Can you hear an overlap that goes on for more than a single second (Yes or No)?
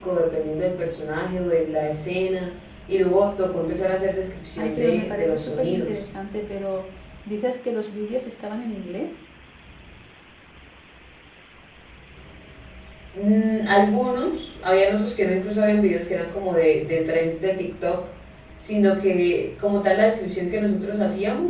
Yes